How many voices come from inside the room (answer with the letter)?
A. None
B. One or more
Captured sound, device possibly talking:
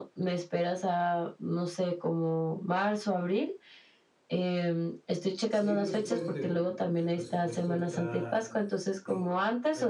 B